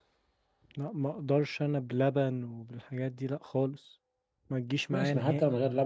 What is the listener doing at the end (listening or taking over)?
taking over